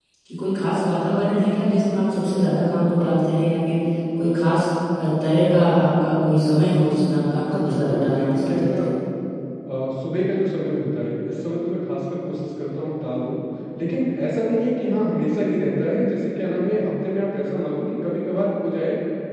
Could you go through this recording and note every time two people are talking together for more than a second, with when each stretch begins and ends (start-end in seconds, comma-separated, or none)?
7.5-8.8